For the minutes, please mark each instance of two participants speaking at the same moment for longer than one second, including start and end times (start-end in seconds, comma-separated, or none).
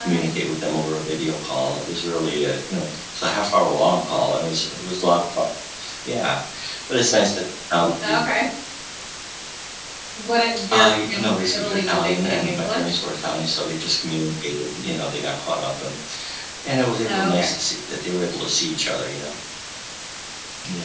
10.7-12.9